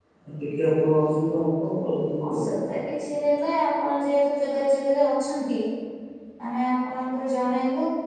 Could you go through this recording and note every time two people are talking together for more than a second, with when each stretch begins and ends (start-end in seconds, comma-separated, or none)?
none